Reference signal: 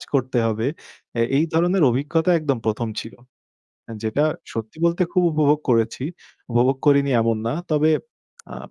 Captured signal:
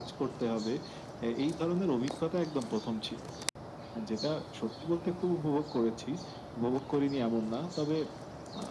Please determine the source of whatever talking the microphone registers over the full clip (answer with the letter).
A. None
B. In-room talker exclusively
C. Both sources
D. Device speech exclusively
D